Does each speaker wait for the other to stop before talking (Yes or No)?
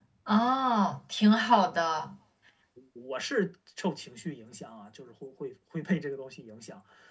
Yes